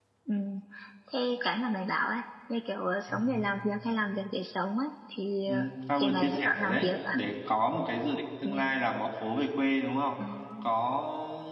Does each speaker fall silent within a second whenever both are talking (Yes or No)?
No